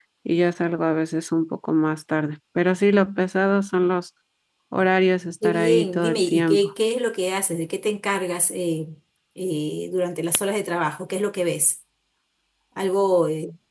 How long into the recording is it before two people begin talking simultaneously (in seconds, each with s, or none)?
5.4 s